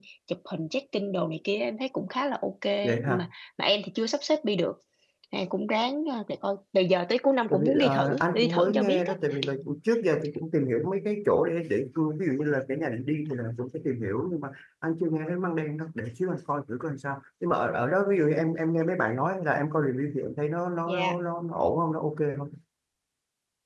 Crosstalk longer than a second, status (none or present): present